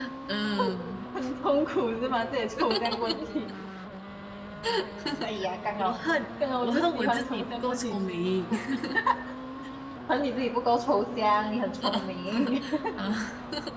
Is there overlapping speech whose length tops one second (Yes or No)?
Yes